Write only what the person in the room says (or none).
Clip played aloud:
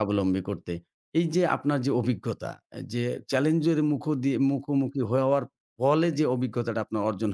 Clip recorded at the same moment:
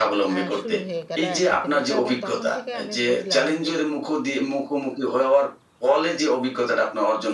আ শুরু হয়ে গেল একসাথে মেশা এবং তখন থেকে আমি বুঝলাম যে,